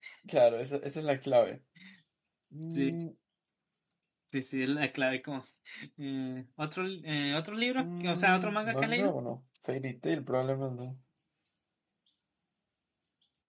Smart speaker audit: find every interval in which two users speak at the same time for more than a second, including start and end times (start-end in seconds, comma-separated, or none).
7.8-9.1